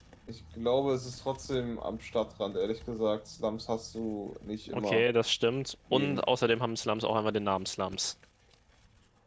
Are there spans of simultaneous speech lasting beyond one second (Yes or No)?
No